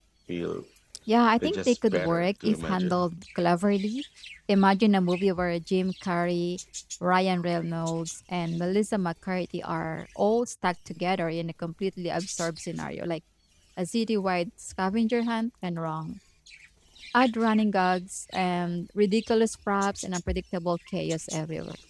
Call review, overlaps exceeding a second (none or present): present